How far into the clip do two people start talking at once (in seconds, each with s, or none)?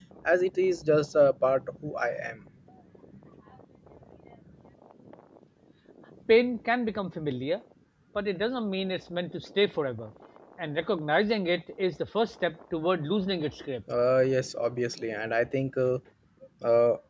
none